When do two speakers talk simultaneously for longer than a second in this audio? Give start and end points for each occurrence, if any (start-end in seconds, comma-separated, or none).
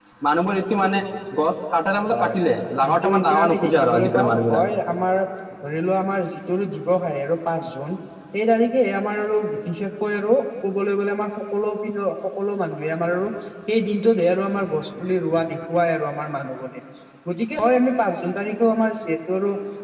2.8-4.6